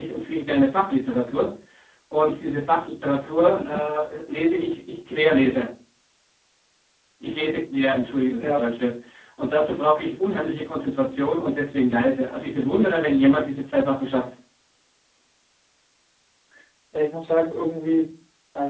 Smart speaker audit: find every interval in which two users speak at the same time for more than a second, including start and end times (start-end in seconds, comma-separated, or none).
none